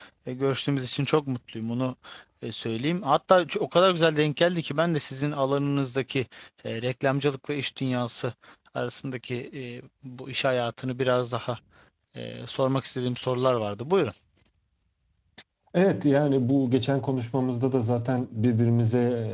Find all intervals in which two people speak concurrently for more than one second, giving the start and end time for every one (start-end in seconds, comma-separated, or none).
none